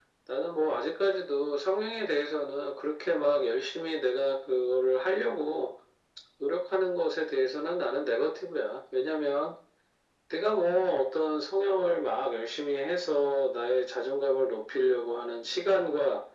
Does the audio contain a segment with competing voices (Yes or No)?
No